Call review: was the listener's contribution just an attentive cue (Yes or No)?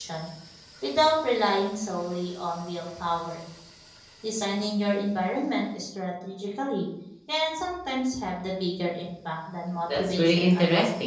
No